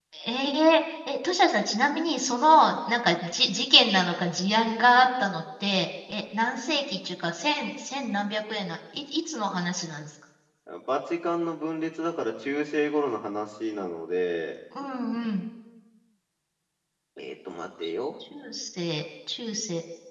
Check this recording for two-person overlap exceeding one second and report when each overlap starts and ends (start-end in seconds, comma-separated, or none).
none